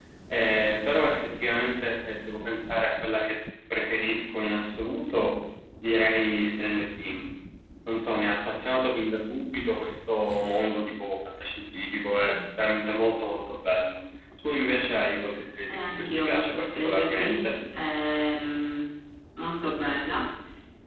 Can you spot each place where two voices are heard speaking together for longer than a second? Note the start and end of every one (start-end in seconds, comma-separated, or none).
15.7-17.6